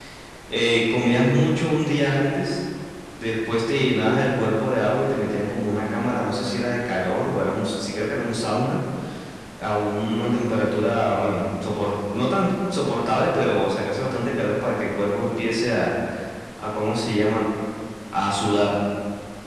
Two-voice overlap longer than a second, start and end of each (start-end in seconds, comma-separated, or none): none